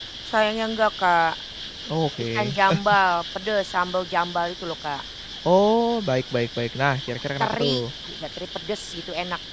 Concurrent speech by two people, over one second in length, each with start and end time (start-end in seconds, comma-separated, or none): none